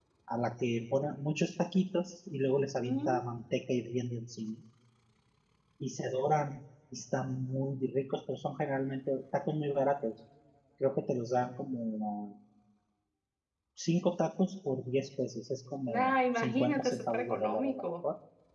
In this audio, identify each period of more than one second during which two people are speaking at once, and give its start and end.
15.9-17.8

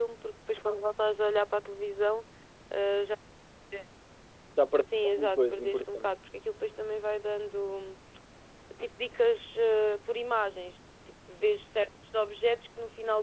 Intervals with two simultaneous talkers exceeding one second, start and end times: 4.9-6.1

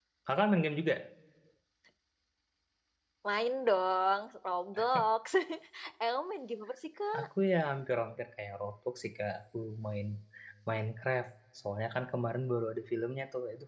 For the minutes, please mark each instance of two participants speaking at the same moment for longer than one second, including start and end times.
none

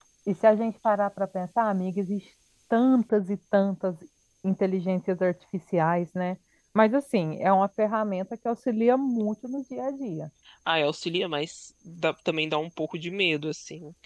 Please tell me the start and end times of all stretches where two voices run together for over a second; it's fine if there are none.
none

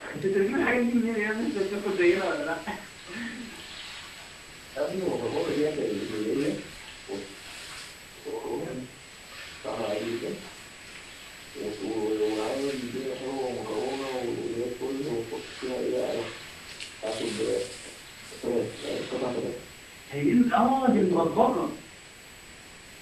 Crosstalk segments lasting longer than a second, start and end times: none

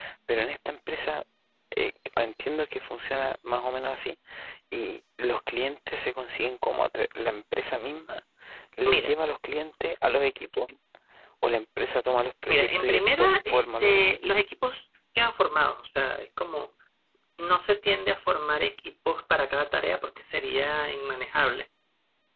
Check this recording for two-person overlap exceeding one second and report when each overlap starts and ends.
12.5-14.2

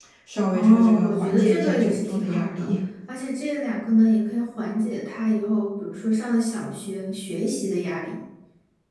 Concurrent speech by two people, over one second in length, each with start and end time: 0.5-2.7

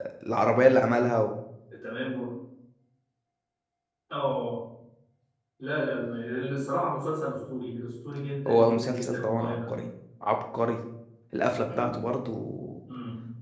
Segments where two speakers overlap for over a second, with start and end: 8.5-9.8

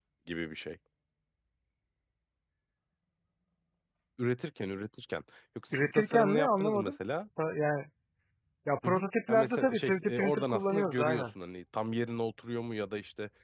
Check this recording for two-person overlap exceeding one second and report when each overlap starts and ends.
5.7-7.0, 8.8-11.3

